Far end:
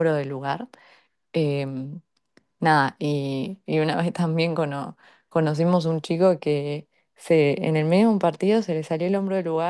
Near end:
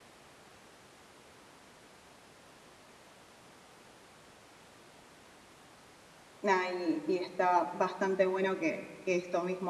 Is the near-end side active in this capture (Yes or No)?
Yes